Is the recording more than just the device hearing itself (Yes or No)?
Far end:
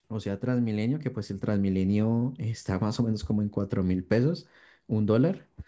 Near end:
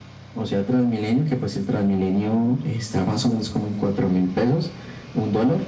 No